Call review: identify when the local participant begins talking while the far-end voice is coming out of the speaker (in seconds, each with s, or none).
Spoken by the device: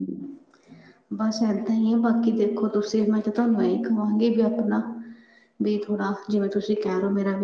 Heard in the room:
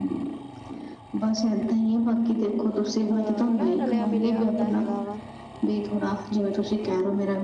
3.1 s